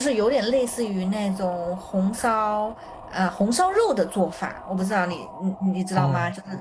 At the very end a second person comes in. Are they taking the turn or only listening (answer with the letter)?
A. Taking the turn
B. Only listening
A